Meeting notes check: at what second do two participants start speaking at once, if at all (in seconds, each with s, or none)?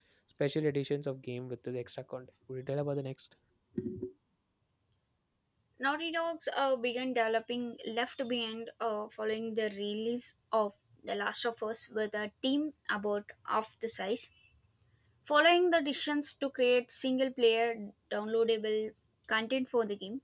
none